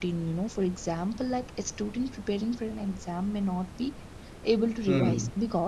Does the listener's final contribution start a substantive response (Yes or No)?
No